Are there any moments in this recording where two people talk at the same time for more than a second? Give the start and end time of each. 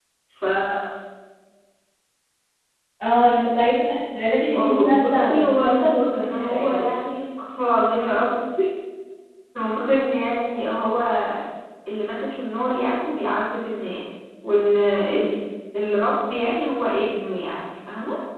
4.5-6.9

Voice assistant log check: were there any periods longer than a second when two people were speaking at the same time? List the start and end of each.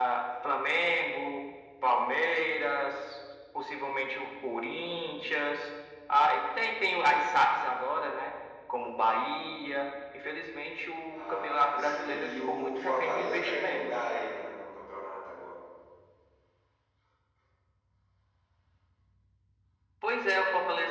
11.1-13.8

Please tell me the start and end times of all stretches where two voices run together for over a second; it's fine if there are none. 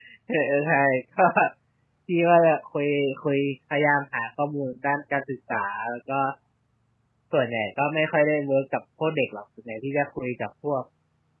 none

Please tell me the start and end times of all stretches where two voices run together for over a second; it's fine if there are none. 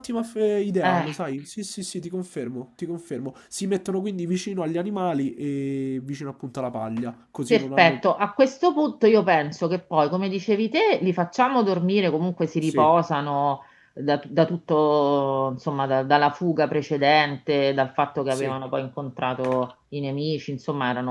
none

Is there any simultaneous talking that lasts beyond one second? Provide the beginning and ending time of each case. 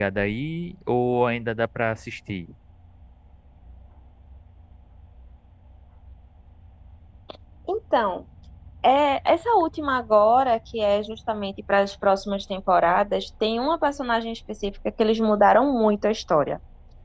none

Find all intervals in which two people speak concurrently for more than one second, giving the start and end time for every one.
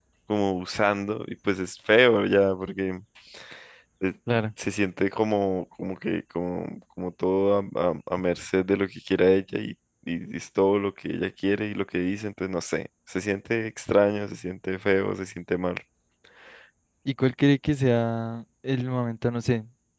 none

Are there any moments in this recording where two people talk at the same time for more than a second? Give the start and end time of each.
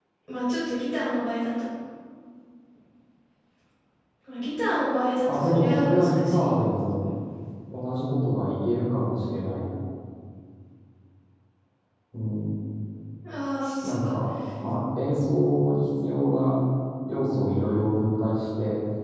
5.3-6.6

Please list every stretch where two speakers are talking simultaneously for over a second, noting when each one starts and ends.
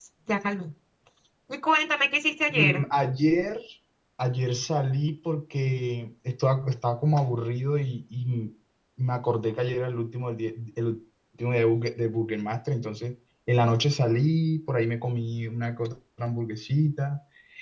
none

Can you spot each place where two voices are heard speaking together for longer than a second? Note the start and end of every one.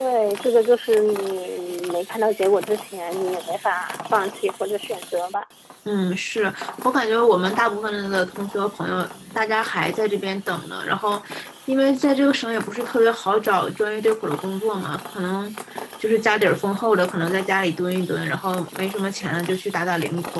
none

